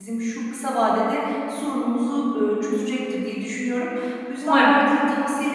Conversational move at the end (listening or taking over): listening